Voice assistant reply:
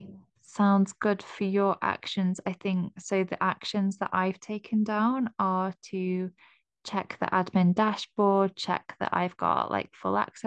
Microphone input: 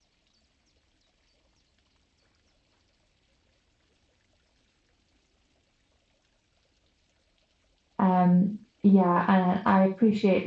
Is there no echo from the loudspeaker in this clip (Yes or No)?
Yes